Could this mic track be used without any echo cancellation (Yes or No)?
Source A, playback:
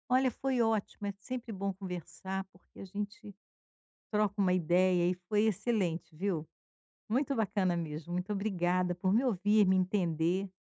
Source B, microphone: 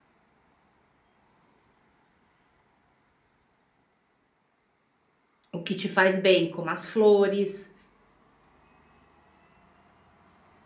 Yes